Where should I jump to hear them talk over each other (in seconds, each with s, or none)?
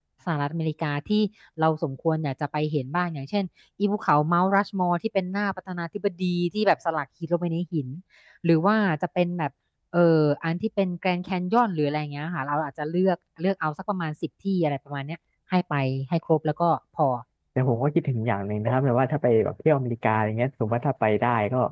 none